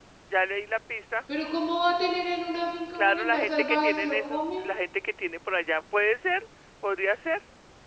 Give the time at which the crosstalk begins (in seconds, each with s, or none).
3.0 s